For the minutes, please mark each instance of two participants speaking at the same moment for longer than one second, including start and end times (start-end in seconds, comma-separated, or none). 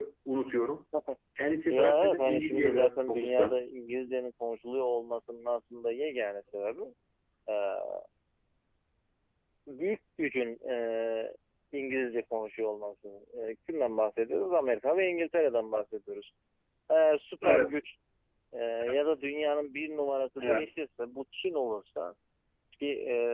1.7-3.6